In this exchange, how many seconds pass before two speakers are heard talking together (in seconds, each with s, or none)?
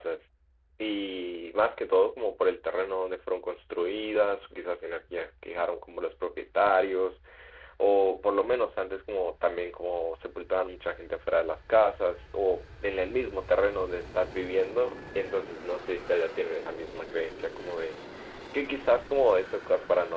none